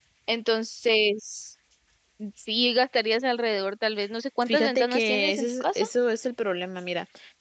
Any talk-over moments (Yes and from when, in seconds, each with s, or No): Yes, from 4.4 s